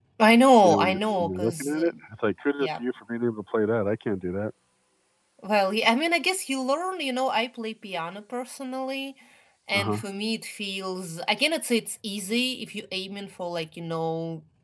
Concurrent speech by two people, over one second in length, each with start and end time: 0.6-1.9

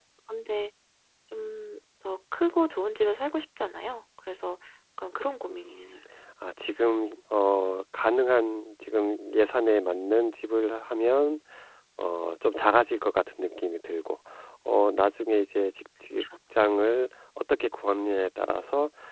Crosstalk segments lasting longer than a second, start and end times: none

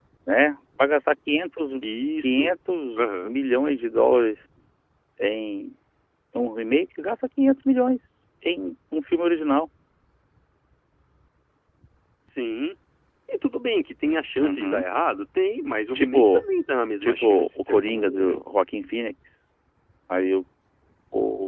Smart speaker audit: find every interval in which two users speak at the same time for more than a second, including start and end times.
17.0-18.4

